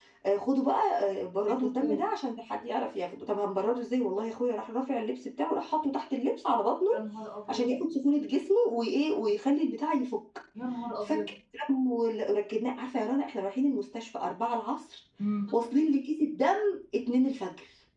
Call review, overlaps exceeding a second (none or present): none